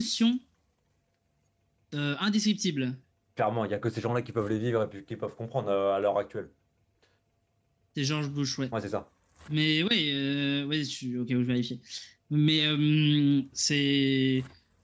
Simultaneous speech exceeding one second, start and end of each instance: none

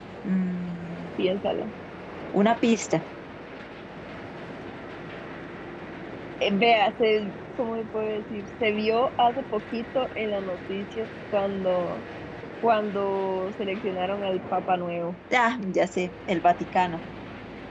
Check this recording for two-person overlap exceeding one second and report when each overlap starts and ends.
none

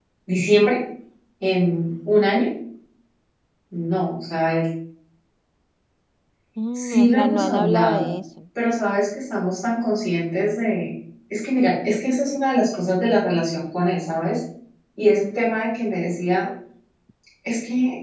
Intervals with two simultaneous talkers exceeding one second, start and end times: 6.7-8.1

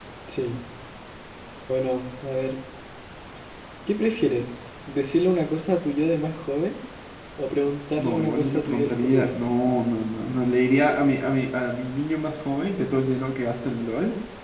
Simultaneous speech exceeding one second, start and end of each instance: 8.0-9.3

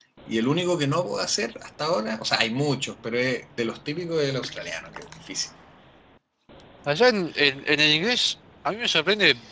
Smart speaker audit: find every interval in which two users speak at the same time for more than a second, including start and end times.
none

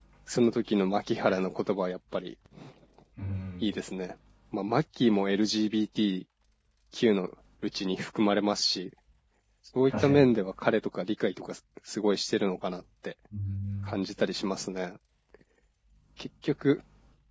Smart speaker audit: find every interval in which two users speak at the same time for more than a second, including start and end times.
none

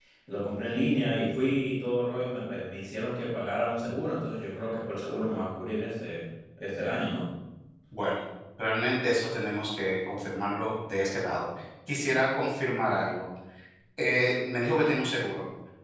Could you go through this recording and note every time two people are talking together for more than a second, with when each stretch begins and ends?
none

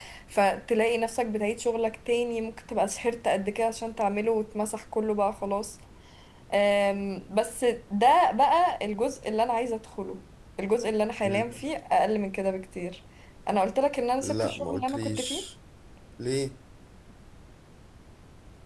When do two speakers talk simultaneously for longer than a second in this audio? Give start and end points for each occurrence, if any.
14.2-15.4

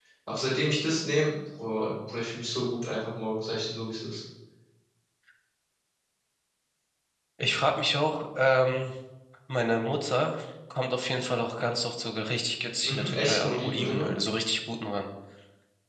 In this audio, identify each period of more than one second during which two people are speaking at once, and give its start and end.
12.8-14.1

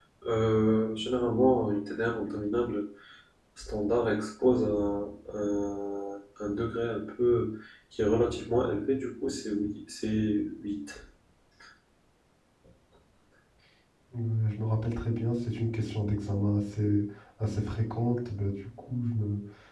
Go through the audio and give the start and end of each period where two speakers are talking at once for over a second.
none

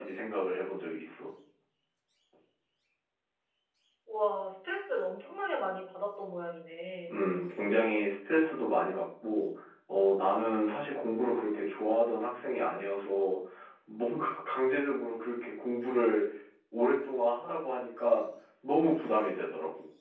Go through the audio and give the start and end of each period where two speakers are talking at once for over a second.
none

